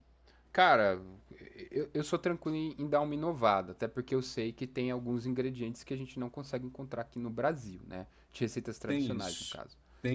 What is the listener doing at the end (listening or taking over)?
taking over